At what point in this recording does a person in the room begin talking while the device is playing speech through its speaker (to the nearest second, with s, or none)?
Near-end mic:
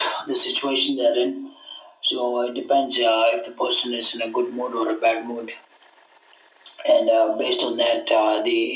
none